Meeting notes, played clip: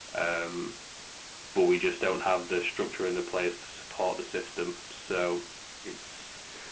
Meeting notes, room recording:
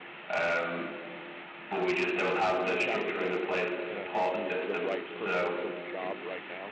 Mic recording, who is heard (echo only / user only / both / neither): both